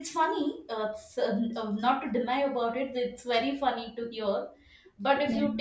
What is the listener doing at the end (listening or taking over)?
listening